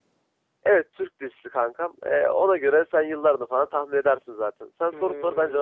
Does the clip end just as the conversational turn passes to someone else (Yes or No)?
Yes